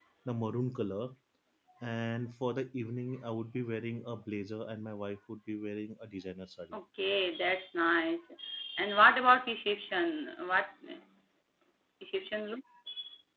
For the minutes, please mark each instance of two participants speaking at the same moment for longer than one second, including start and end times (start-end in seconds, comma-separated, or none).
none